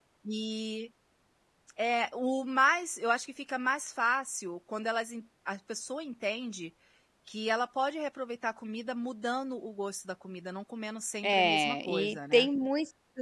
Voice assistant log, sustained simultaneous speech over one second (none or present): present